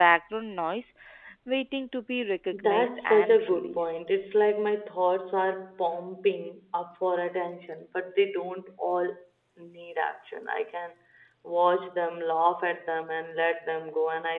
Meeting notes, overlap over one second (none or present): present